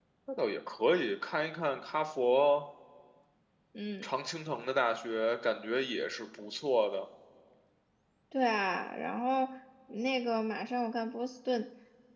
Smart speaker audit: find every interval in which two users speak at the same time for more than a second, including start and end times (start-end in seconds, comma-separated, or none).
none